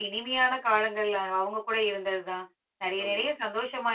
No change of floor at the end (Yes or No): Yes